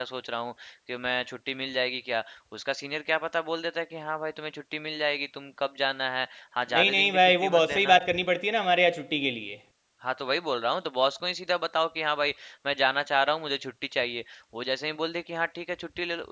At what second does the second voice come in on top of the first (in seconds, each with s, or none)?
6.7 s